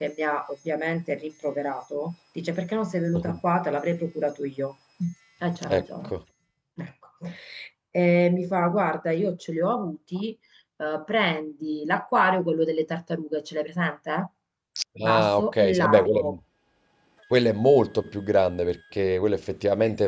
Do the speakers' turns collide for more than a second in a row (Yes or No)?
Yes